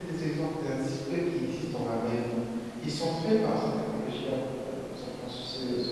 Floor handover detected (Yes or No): Yes